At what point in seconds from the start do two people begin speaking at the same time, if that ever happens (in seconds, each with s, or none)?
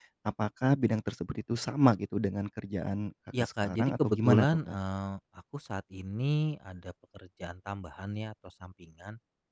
3.3 s